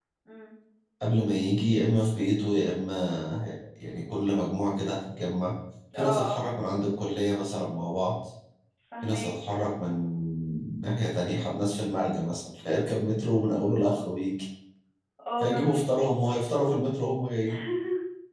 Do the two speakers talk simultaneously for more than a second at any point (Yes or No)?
No